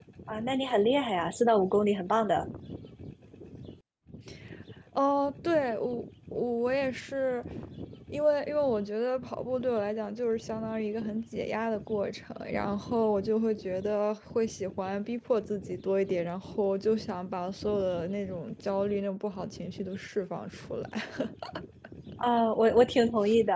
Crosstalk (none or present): none